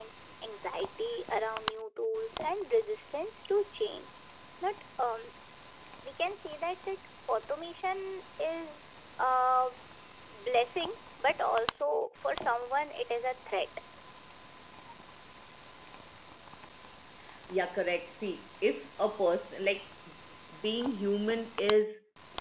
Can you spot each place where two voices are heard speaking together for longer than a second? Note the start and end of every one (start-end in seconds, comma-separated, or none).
none